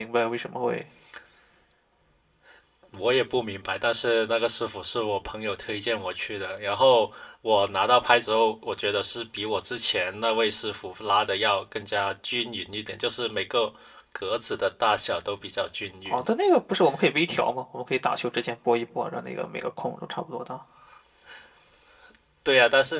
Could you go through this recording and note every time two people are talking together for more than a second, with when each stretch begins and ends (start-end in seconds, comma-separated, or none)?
none